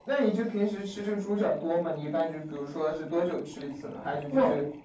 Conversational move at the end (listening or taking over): listening